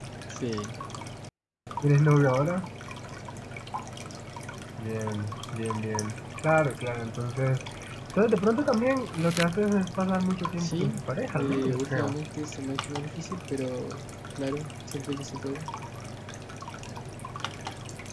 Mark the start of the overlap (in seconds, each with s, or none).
10.6 s